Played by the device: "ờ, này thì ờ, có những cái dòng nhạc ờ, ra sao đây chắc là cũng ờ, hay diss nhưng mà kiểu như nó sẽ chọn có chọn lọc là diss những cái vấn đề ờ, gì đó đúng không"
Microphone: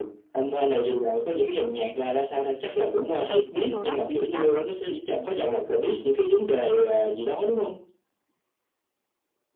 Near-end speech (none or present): present